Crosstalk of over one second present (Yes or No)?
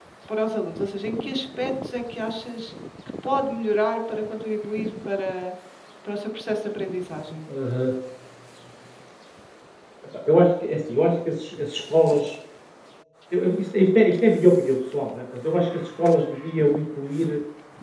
No